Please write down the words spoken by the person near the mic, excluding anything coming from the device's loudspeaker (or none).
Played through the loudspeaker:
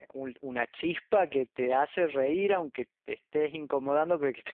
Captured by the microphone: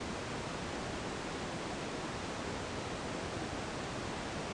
none